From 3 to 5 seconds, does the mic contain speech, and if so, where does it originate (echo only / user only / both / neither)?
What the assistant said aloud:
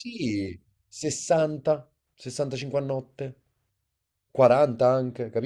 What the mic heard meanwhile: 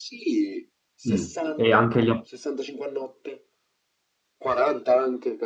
echo only